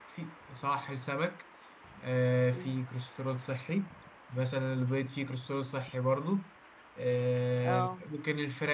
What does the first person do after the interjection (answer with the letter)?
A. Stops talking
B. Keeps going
B